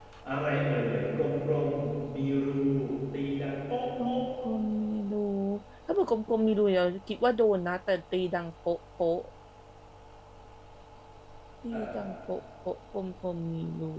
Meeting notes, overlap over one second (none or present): none